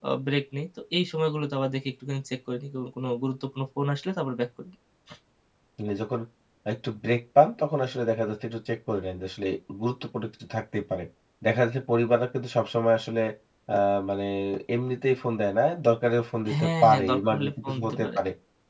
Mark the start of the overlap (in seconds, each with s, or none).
16.5 s